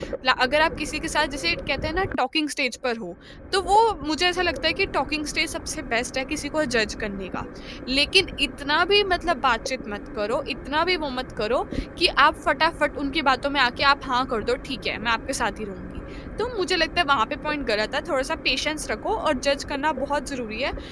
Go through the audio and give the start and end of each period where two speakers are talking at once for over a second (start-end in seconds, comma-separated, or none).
none